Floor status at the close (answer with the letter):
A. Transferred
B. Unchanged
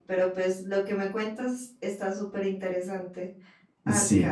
A